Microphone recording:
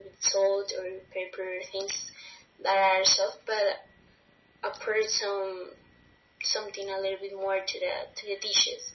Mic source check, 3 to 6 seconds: echo only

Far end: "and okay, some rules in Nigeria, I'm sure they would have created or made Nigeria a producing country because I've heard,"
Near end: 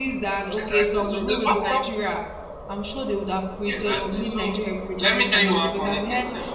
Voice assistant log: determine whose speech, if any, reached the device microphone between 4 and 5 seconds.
both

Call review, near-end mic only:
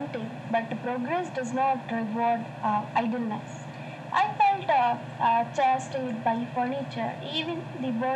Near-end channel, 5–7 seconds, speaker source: echo only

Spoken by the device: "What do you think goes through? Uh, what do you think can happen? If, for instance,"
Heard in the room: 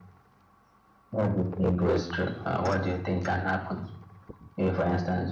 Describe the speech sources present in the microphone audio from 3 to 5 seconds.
echo only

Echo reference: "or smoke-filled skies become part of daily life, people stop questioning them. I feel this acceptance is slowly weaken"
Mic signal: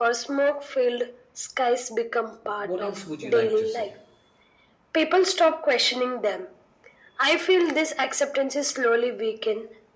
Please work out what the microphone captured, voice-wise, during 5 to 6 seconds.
echo only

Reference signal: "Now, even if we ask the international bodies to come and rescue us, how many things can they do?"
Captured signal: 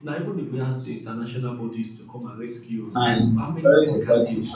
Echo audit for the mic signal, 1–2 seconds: echo only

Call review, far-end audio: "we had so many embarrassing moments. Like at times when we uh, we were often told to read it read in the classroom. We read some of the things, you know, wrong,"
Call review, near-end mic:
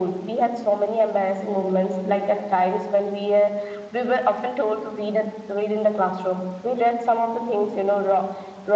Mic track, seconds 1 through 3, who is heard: echo only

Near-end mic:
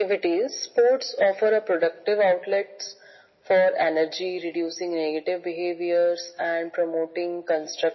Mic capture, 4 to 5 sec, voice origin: echo only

